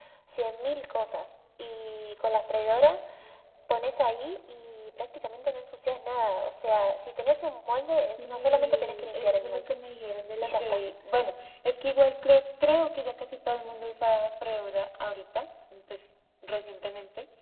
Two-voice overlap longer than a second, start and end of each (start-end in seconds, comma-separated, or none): 8.2-9.7